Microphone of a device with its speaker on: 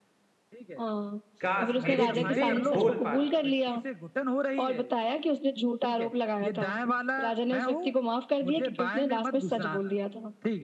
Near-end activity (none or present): present